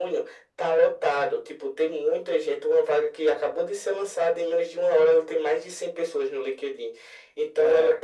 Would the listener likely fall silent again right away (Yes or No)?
Yes